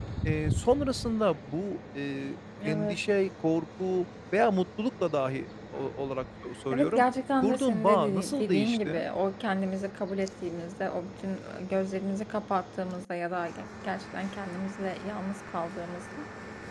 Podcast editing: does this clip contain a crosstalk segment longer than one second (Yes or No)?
Yes